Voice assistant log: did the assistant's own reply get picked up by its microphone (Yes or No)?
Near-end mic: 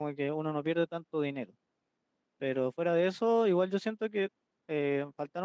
No